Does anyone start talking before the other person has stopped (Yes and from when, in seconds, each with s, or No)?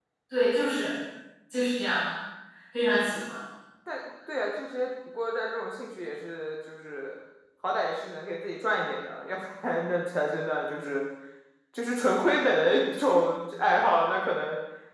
No